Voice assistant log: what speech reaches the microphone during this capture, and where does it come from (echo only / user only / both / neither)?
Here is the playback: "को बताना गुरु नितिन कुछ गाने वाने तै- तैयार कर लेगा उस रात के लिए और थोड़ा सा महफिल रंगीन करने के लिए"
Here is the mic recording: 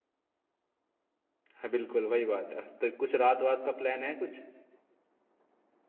user only